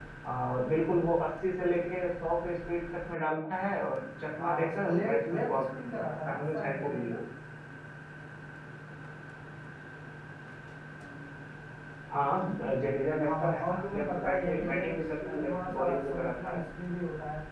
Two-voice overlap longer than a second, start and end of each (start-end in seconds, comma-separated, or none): 4.4-7.2, 13.2-16.6